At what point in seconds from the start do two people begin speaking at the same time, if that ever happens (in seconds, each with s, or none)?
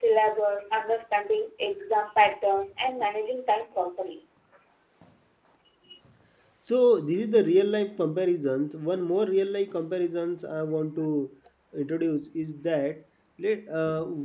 none